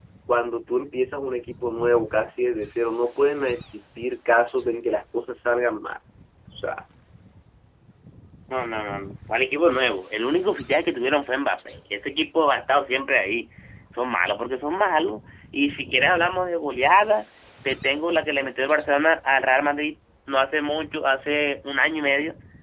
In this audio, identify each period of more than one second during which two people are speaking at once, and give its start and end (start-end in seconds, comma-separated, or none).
none